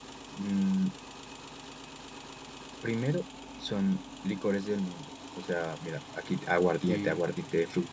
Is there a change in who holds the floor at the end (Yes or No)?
No